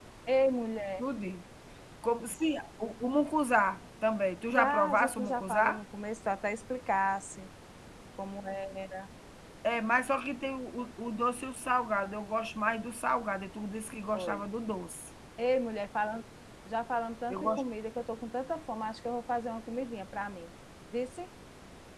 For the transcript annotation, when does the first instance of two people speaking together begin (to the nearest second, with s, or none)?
5 s